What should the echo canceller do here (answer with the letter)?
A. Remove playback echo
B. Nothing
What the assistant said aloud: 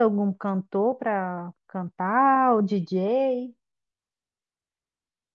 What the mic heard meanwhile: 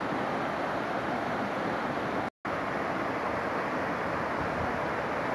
B